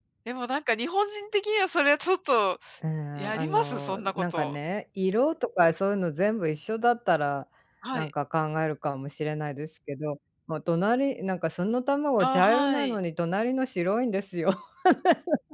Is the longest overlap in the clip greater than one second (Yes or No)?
Yes